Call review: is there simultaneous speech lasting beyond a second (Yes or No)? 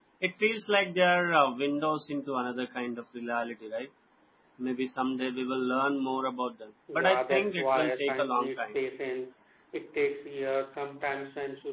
Yes